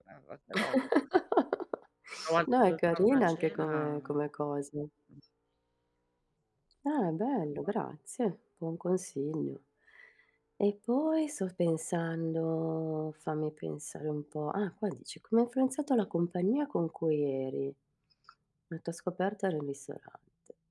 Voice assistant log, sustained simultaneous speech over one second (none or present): present